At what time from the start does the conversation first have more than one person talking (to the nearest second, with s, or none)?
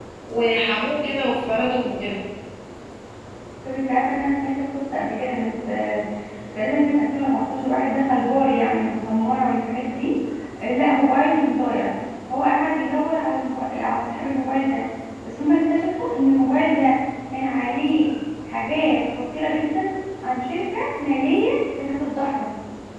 none